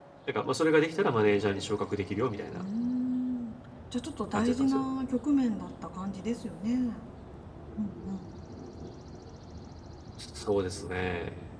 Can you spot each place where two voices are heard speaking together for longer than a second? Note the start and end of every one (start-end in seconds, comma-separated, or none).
none